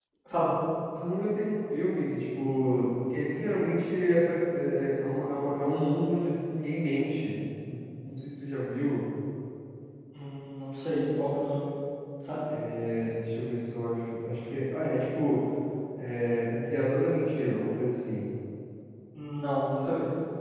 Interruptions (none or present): none